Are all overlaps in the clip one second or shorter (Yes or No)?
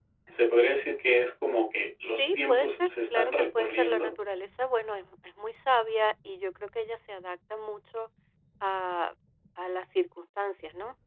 No